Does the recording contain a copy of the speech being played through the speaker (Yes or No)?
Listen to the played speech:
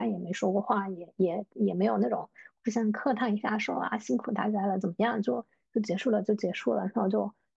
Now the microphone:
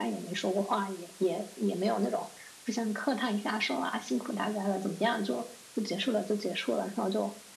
Yes